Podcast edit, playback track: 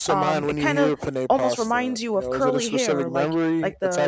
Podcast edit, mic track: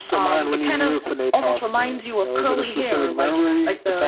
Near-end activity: none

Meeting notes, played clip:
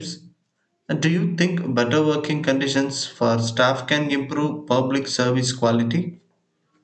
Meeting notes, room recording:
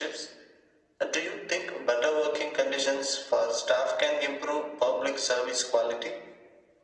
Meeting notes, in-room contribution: none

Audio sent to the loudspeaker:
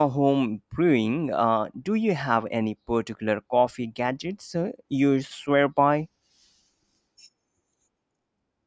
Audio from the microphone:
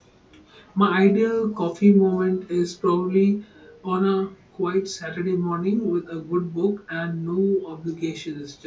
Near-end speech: present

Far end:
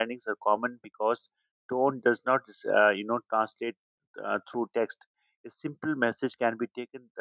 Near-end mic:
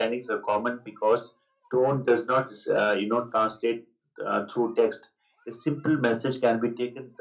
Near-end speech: none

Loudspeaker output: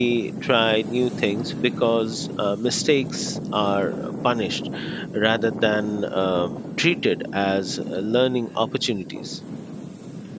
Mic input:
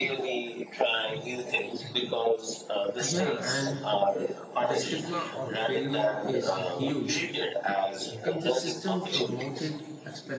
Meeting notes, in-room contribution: present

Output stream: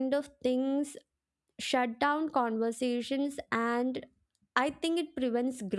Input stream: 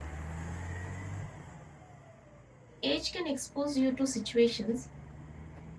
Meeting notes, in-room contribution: present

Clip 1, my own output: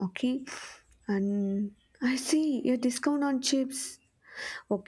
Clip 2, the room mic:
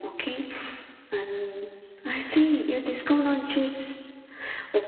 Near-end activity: none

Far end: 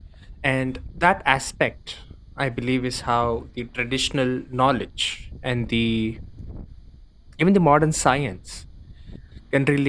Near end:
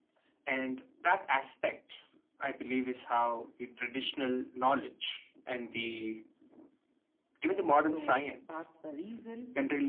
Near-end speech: present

